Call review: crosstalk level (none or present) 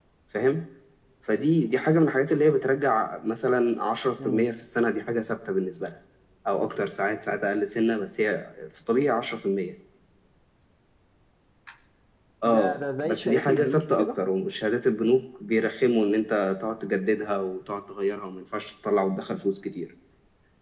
present